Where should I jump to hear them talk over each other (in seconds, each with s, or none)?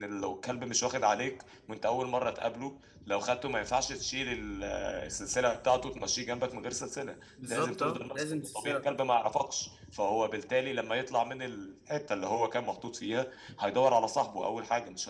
7.4 s